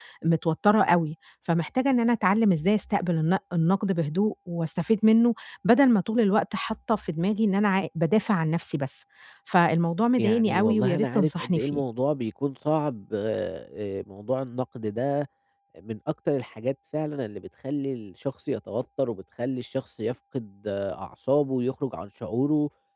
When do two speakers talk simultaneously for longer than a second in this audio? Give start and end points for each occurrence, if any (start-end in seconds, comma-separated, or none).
10.2-11.8